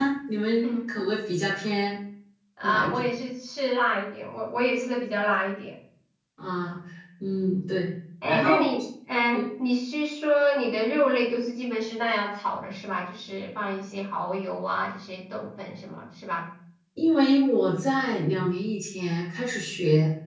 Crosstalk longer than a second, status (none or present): none